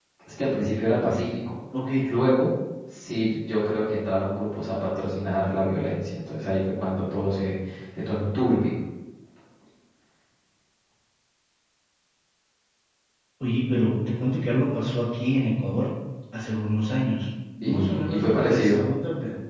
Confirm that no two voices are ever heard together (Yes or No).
No